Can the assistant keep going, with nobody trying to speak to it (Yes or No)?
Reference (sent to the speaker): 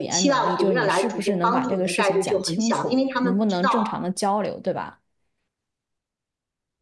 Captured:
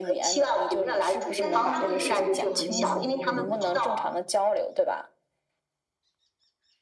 No